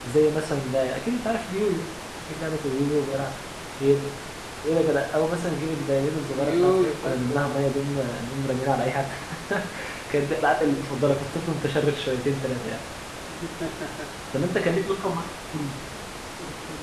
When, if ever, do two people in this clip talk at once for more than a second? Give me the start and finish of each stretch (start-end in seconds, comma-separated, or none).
6.3-8.1